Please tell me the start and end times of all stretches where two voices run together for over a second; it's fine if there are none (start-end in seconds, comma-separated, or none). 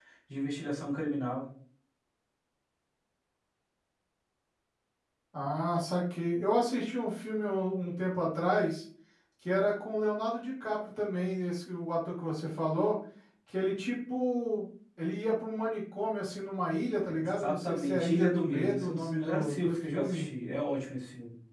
17.1-20.3